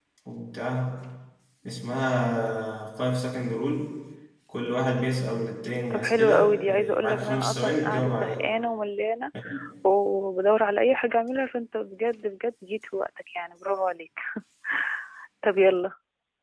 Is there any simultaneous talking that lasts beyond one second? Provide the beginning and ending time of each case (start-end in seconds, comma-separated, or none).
5.9-8.5